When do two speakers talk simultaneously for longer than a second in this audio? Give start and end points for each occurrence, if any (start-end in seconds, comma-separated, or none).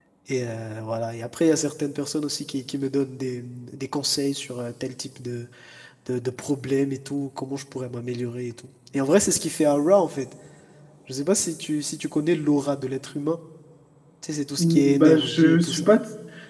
14.6-15.9